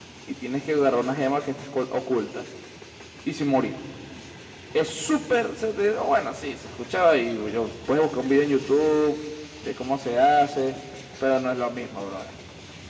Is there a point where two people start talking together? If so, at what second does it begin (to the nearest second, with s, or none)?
none